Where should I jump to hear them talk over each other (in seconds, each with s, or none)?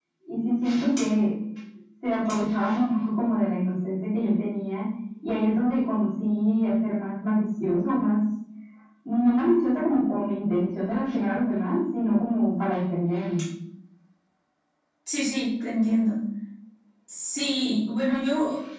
none